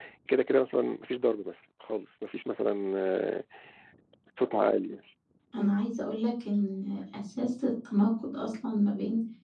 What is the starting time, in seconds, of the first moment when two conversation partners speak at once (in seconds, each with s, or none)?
none